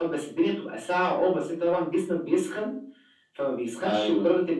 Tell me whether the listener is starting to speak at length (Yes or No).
No